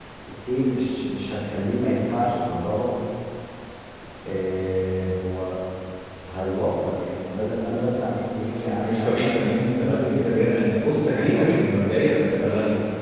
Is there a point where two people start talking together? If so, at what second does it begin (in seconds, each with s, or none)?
8.6 s